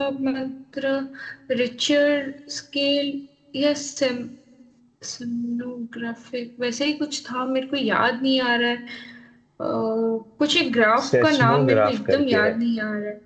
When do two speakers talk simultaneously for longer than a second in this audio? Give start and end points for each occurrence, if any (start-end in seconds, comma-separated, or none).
11.0-12.5